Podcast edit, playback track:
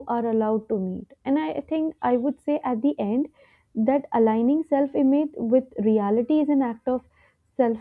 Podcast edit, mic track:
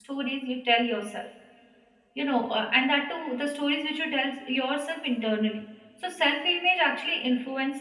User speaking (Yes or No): Yes